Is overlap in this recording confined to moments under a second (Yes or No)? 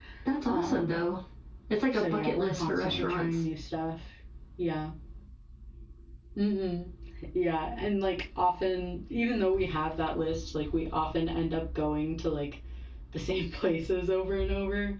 No